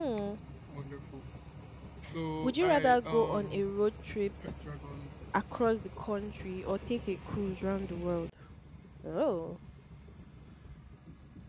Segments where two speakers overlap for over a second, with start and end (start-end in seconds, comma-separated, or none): 2.4-3.7